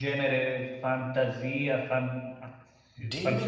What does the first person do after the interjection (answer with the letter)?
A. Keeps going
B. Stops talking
B